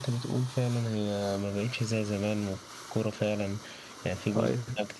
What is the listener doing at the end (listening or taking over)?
listening